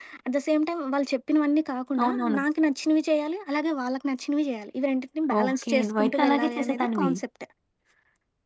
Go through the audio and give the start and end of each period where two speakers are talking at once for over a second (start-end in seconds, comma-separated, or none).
5.4-7.1